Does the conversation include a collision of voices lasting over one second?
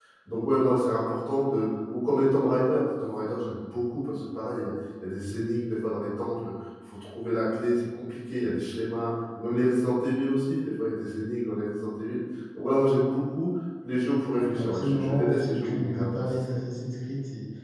Yes, from 14.3 s

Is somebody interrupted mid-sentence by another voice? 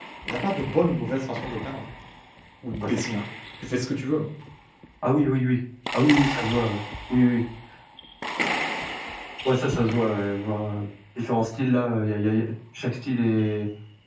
No

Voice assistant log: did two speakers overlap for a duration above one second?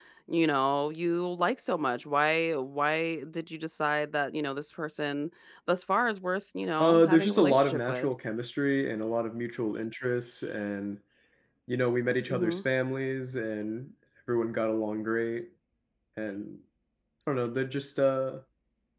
Yes, from 6.8 s

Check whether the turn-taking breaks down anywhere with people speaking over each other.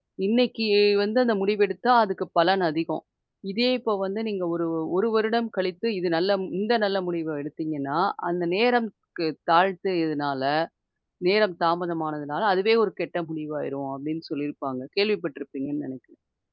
No

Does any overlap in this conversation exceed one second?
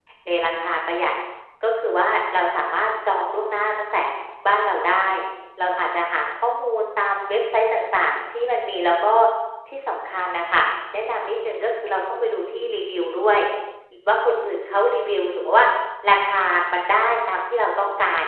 No

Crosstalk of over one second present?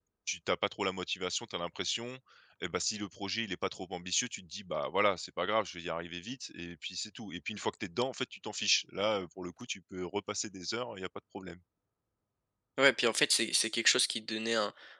No

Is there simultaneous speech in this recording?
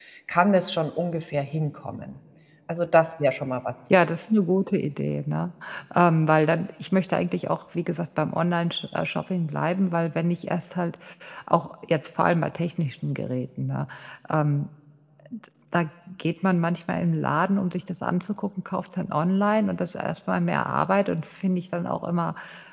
No

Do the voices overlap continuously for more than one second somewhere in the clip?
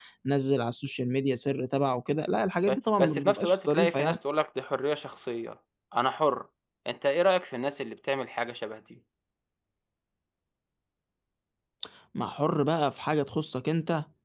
Yes, from 2.7 s

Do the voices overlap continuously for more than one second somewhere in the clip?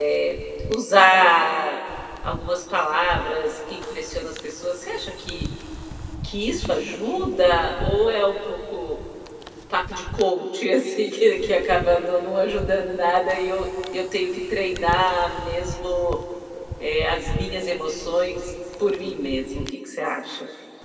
No

